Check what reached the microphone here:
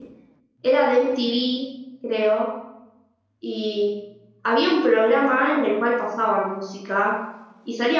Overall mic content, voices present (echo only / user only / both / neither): user only